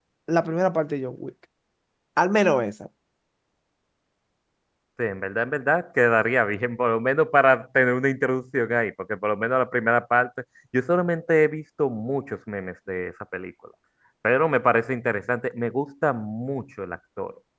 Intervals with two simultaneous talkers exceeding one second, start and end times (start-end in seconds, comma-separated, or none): none